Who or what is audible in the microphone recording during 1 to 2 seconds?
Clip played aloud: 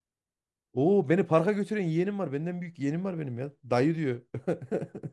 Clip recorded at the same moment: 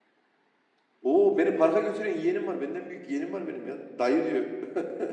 echo only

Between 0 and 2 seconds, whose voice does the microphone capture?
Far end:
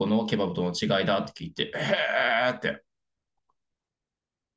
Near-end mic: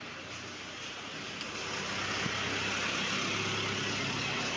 neither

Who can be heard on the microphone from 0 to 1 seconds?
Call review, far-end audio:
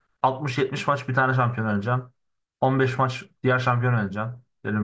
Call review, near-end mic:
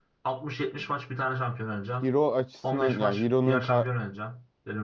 echo only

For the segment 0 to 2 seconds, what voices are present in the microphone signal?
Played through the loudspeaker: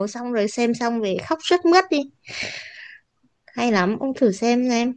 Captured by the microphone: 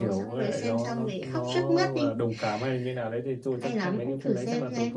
both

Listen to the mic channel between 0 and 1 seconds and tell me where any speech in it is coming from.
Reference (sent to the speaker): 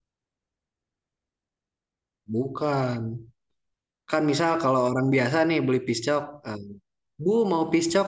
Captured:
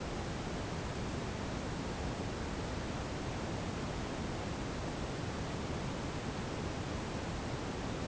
neither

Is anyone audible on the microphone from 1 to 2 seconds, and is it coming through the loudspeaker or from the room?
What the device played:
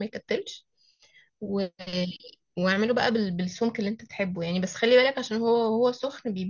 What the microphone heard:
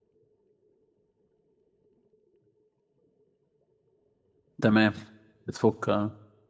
neither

